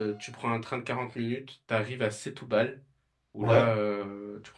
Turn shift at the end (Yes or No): No